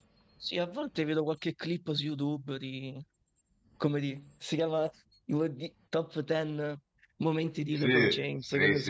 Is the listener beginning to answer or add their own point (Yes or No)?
Yes